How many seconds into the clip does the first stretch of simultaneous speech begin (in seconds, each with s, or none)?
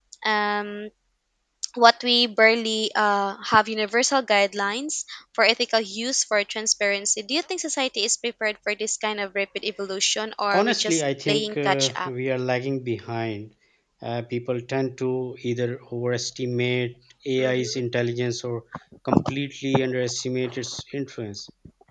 10.5 s